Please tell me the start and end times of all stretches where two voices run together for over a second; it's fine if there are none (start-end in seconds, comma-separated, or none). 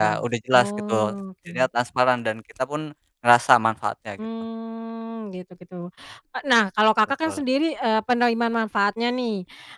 none